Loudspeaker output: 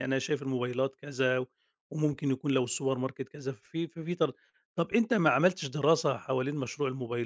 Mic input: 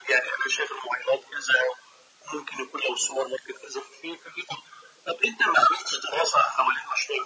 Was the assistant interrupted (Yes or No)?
No